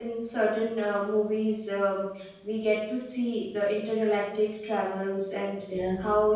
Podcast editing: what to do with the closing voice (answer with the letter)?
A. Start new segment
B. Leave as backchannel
B